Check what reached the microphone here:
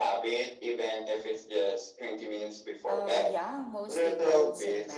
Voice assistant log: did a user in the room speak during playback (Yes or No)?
Yes